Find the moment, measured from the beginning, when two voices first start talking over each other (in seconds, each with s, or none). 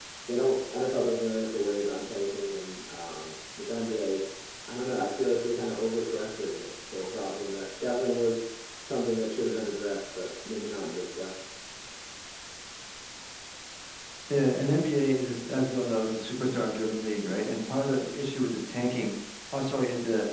none